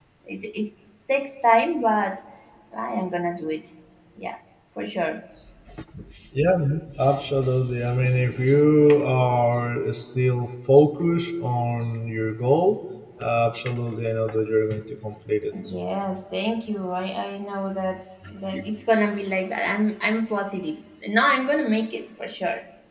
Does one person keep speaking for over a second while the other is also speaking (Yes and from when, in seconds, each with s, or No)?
No